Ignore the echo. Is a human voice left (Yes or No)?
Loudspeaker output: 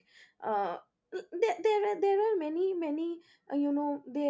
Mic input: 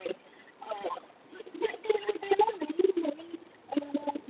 No